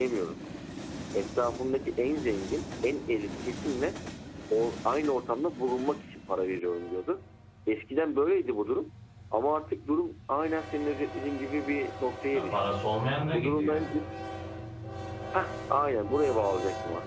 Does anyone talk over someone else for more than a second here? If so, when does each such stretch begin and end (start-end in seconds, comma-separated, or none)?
none